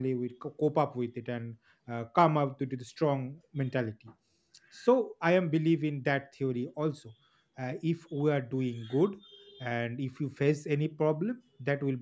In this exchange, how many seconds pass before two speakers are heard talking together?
none

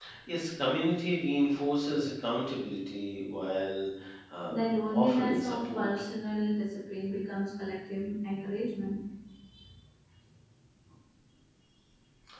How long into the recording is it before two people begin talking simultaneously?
4.5 s

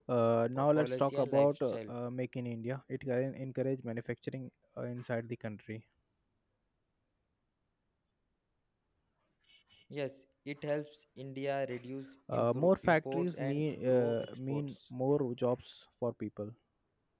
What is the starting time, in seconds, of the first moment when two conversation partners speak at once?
0.6 s

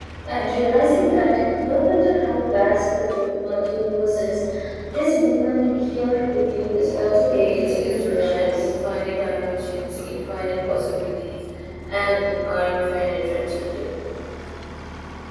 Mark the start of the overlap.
7.3 s

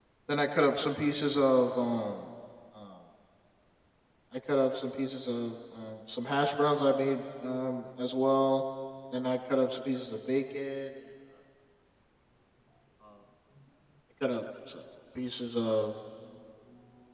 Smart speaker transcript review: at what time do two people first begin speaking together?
none

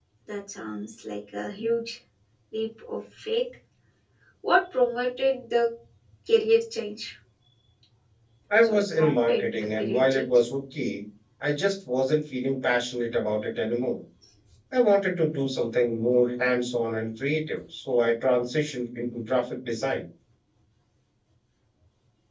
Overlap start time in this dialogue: 8.6 s

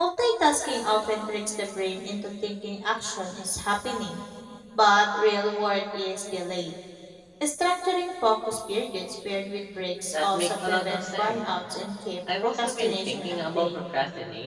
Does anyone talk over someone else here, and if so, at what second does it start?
10.1 s

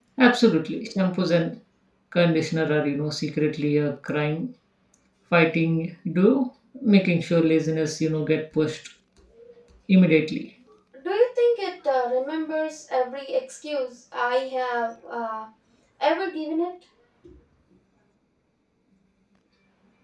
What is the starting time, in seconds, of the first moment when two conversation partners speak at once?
none

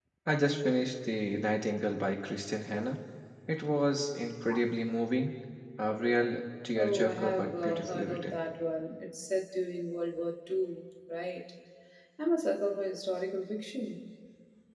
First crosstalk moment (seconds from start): 6.8 s

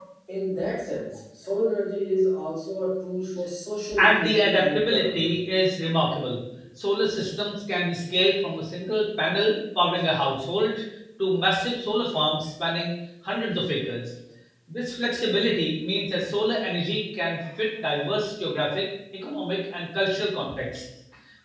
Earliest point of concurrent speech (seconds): 4.0 s

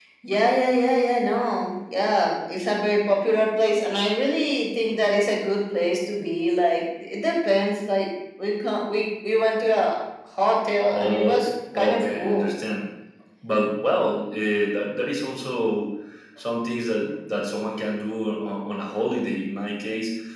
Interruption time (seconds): 10.9 s

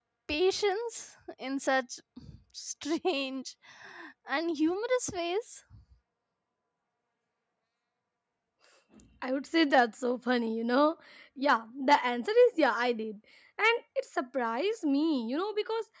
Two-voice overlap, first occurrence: none

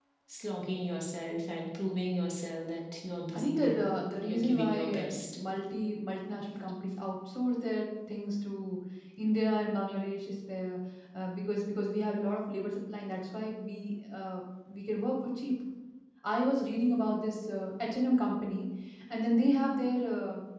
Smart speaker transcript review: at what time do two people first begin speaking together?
3.3 s

